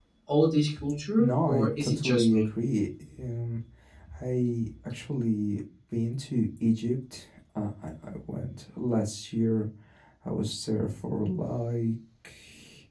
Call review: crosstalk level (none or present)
present